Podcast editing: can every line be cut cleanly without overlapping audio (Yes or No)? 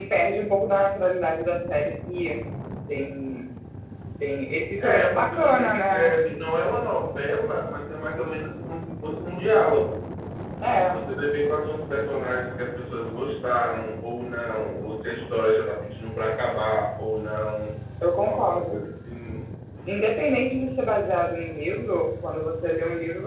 No